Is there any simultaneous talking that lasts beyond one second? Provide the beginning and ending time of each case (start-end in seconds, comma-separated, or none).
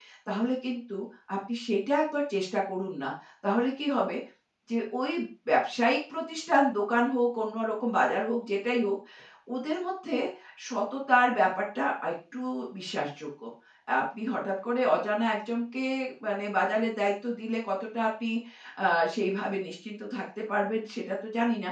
none